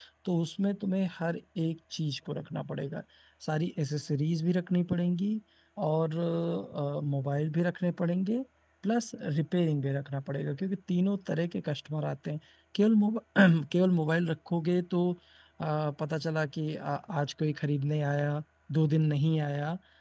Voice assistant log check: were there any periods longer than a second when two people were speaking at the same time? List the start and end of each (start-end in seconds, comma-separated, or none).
none